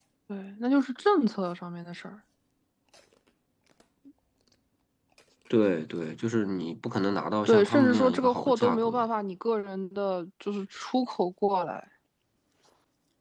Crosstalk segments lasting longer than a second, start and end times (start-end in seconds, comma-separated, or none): 7.5-9.0